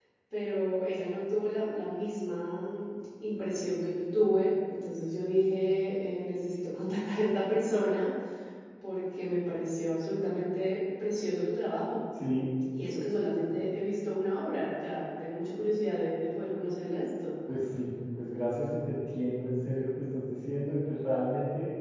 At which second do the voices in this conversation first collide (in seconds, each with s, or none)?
none